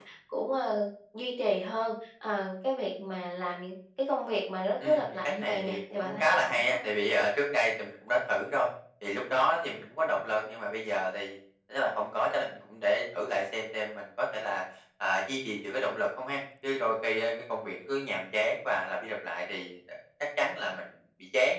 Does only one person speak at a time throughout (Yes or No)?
No